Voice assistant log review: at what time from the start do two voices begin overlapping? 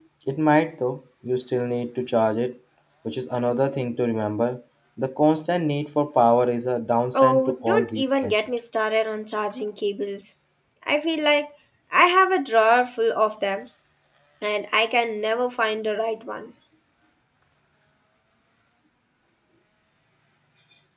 7.1 s

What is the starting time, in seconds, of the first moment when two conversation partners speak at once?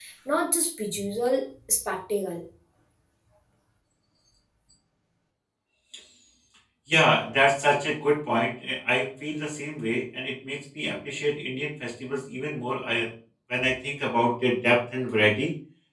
none

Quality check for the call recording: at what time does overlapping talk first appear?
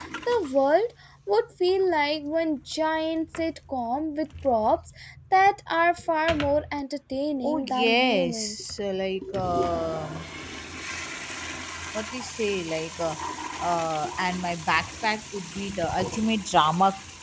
7.4 s

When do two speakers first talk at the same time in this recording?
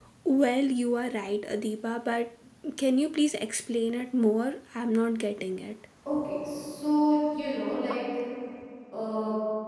none

